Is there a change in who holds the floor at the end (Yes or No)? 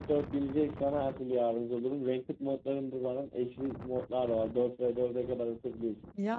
No